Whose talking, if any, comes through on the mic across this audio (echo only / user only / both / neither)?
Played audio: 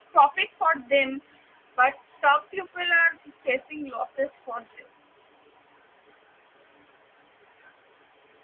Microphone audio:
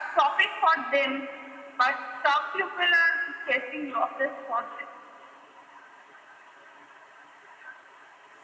echo only